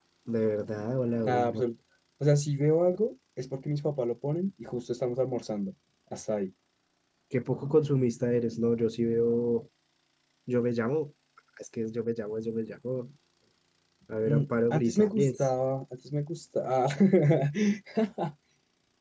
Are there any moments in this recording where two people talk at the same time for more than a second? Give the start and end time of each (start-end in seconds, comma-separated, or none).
14.2-15.5